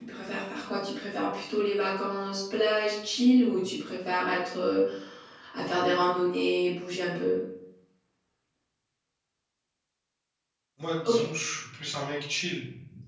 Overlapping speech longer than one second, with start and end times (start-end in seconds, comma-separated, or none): none